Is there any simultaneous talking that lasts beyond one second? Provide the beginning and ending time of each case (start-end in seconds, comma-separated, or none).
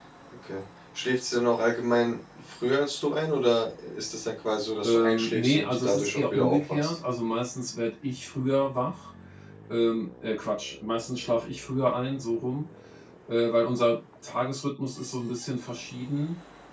4.8-7.0